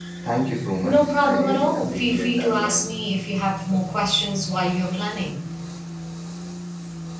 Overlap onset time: 0.8 s

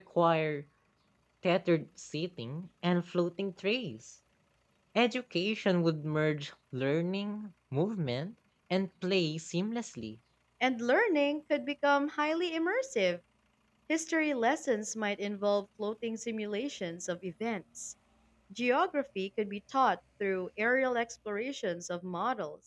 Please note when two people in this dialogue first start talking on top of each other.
none

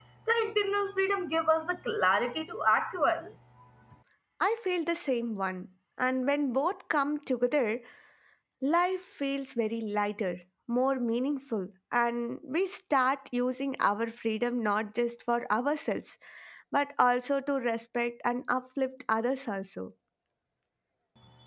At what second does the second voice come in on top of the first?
none

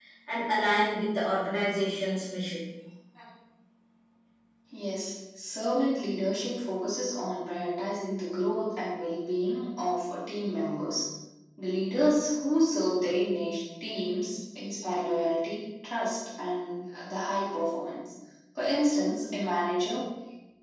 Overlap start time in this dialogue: none

